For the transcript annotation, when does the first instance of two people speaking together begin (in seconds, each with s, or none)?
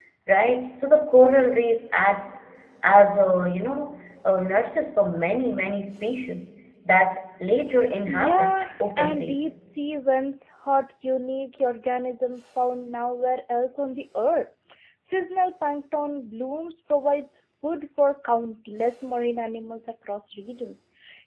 8.1 s